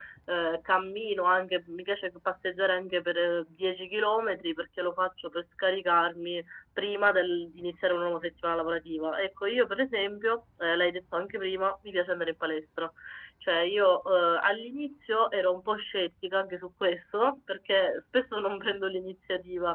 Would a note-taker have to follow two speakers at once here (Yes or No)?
No